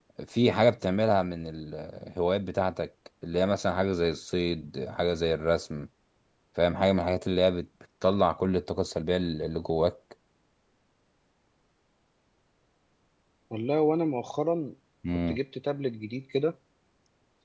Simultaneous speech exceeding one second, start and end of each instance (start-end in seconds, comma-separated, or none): none